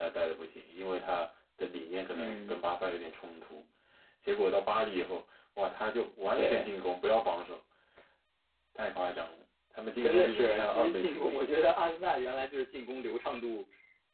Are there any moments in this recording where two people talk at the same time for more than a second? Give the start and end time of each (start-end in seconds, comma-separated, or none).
10.0-11.5